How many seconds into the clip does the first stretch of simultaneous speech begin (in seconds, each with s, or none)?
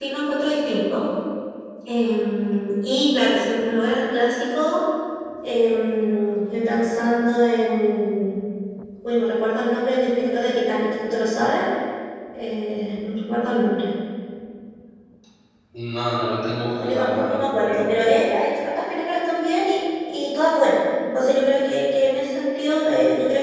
16.6 s